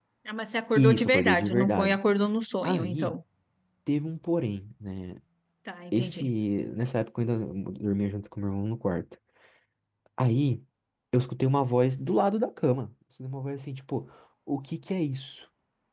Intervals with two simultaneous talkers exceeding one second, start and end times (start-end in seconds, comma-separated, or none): 0.8-2.0